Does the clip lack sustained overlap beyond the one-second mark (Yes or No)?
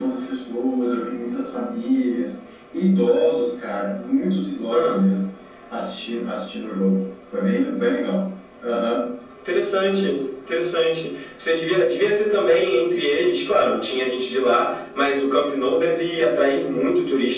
Yes